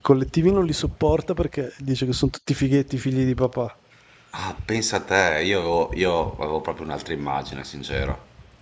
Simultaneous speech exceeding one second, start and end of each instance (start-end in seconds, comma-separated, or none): none